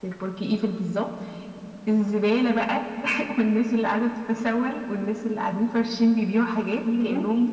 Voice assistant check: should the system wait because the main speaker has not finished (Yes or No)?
Yes